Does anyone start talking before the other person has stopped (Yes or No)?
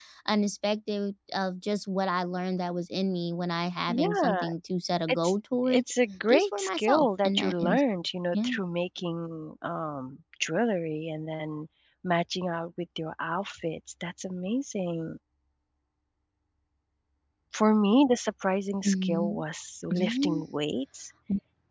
Yes